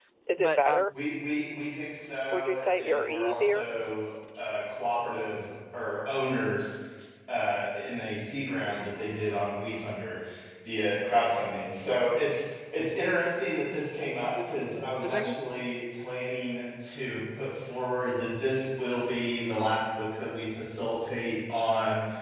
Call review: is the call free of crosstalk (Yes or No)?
No